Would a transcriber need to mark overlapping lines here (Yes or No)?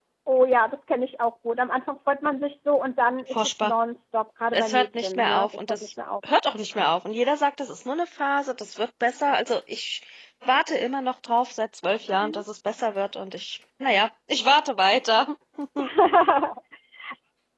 Yes